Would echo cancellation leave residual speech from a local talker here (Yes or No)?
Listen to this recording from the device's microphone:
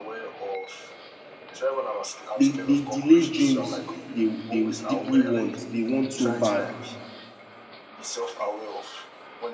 Yes